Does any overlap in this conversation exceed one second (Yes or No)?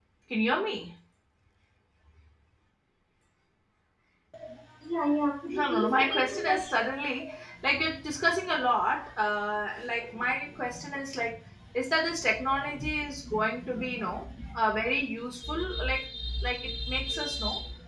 Yes